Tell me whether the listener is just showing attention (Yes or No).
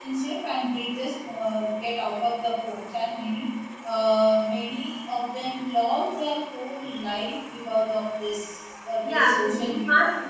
No